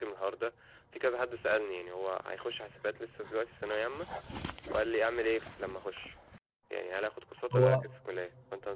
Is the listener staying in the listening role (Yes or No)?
Yes